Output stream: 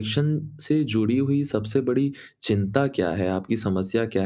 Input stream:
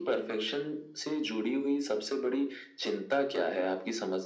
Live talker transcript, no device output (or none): none